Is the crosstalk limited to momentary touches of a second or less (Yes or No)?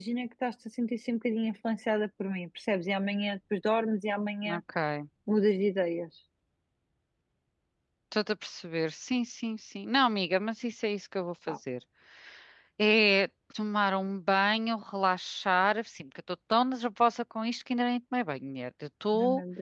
Yes